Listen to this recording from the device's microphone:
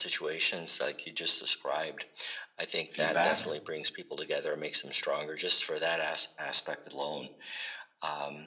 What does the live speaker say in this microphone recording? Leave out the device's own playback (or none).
feedback